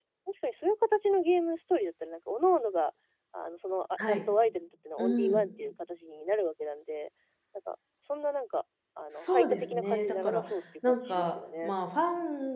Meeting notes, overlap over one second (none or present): present